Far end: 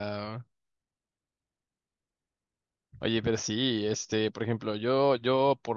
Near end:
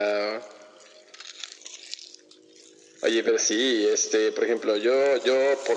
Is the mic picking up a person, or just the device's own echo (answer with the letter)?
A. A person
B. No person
B